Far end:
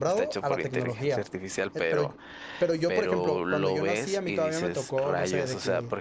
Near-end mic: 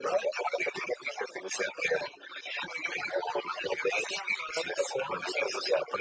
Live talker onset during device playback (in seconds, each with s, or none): none